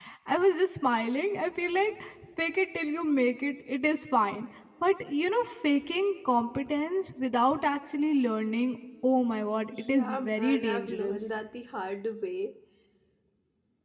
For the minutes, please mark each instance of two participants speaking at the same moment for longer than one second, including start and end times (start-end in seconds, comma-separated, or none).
9.9-11.2